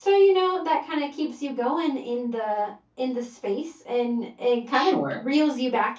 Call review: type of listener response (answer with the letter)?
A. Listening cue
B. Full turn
A